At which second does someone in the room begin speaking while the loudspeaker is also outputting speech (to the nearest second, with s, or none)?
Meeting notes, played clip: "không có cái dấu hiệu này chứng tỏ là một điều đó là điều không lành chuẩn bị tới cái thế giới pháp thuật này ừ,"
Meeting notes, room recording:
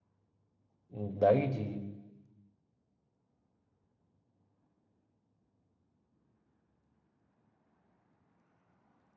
1 s